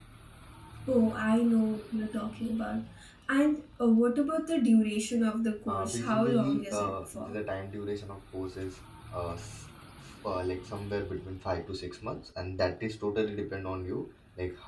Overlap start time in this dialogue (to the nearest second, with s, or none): 6 s